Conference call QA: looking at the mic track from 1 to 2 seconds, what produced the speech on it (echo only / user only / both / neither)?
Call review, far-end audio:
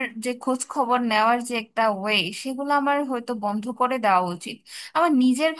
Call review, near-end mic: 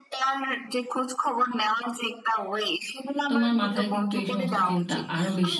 echo only